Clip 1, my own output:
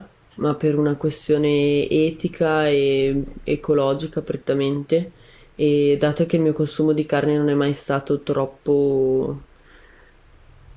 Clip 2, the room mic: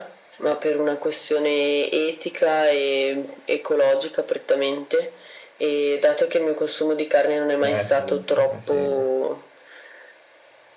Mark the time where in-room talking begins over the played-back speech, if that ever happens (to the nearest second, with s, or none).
8 s